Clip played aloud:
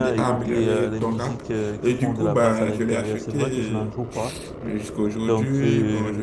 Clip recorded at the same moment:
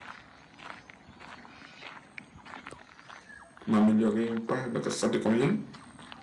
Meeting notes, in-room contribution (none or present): present